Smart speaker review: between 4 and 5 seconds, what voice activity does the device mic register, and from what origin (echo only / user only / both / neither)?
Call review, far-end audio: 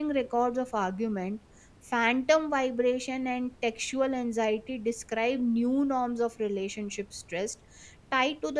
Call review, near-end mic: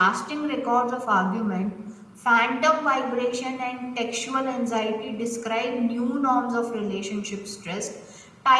echo only